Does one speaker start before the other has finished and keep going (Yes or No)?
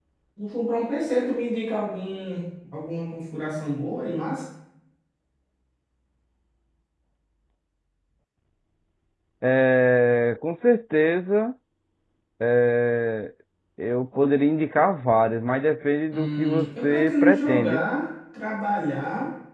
Yes